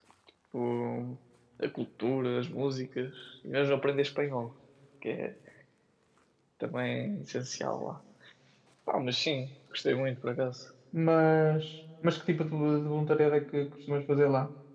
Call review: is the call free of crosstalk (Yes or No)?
Yes